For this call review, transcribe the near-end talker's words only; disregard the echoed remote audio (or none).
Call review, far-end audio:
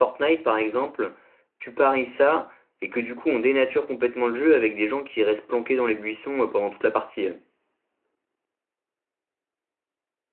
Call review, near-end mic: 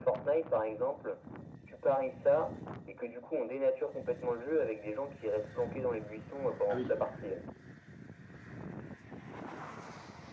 Ah oui.